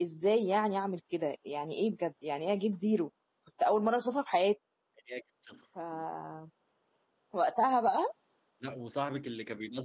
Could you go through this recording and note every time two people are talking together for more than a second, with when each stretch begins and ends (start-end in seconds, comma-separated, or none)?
none